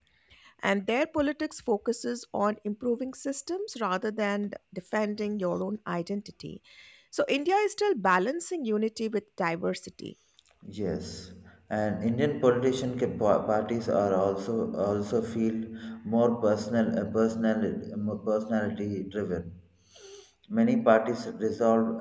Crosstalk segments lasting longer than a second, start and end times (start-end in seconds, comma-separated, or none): none